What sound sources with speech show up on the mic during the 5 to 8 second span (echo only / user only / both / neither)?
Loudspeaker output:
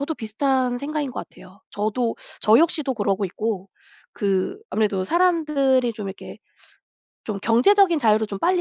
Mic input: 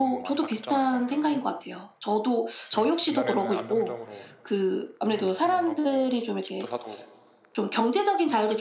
both